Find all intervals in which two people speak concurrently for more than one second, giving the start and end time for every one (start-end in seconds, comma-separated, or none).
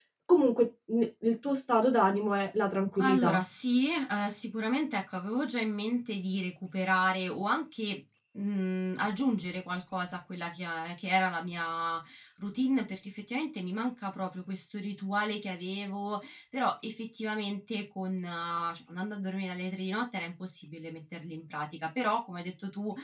none